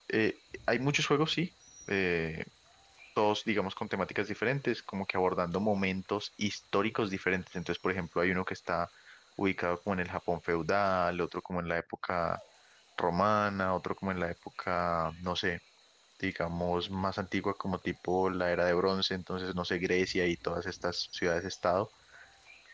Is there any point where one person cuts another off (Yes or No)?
No